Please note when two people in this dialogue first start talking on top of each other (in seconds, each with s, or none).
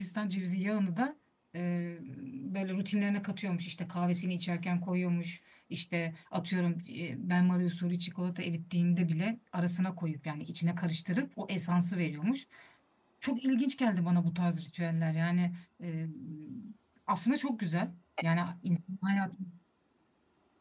none